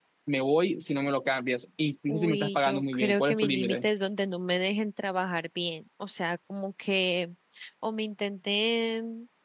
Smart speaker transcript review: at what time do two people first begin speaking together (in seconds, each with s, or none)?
2.1 s